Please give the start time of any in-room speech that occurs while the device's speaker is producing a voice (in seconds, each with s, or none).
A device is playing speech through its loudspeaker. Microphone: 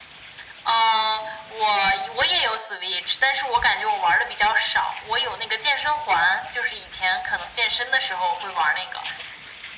none